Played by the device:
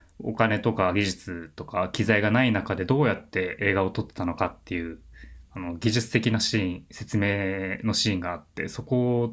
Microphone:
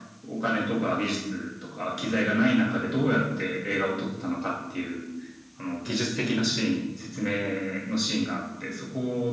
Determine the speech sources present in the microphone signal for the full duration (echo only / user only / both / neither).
echo only